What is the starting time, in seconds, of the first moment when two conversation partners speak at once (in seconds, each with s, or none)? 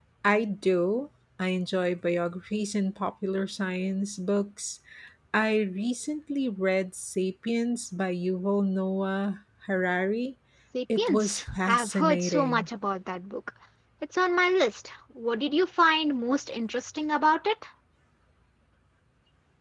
11.0 s